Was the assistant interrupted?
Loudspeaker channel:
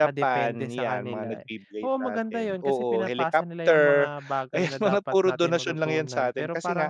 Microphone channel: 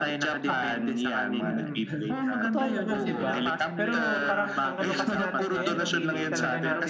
Yes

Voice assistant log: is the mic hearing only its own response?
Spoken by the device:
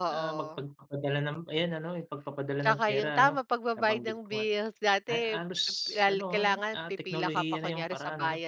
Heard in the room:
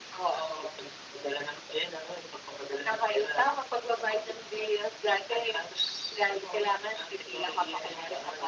Yes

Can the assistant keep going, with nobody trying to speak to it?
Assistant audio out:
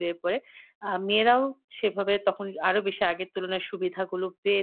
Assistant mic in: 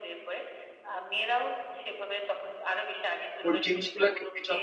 No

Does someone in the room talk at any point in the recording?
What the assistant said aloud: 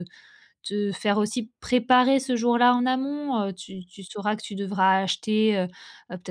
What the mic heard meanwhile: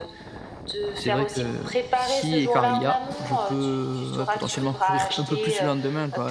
Yes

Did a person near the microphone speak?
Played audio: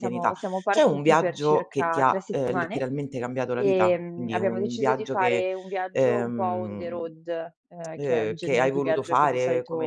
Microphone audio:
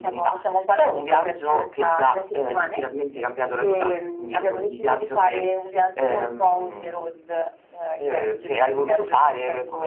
No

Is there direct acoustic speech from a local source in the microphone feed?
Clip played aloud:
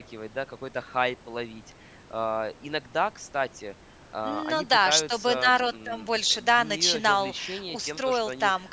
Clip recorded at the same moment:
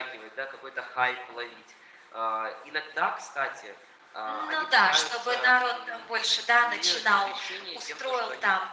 No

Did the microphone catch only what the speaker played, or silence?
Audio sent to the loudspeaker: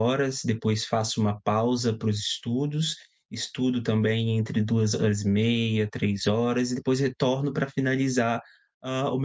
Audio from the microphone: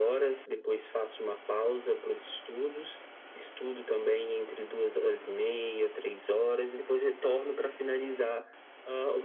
Yes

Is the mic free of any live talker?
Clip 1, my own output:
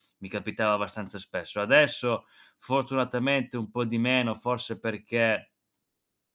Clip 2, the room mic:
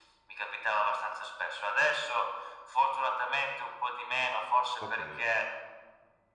No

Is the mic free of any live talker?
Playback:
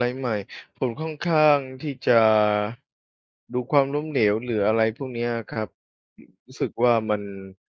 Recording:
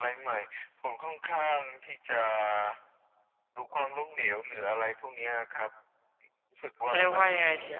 No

